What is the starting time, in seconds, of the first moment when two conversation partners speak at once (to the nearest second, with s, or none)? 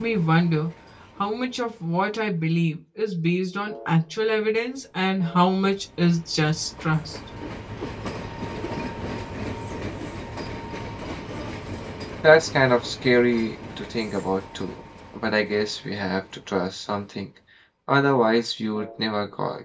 none